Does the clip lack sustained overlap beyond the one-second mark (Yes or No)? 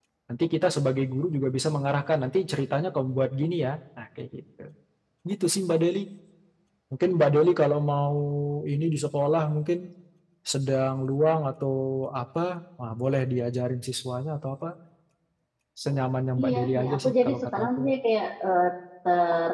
No